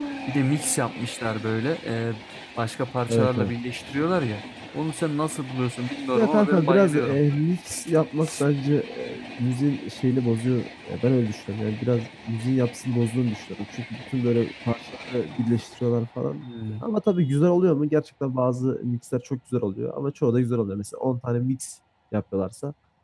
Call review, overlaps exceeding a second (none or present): present